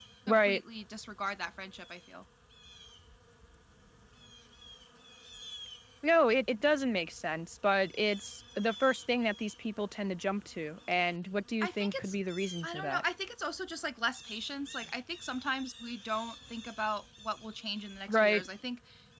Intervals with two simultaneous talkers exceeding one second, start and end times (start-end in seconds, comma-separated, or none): none